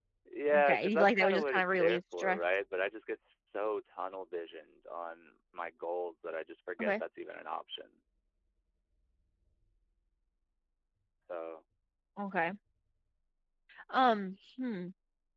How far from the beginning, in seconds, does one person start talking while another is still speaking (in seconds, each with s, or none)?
0.5 s